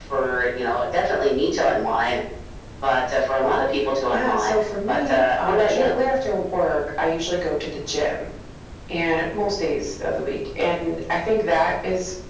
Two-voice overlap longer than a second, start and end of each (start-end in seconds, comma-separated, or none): 4.1-6.0